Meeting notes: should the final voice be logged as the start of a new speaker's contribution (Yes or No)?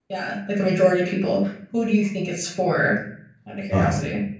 Yes